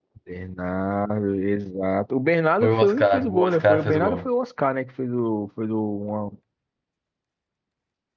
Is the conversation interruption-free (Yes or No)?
No